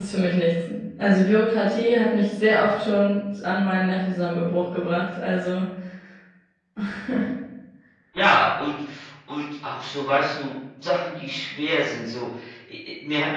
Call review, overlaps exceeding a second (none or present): none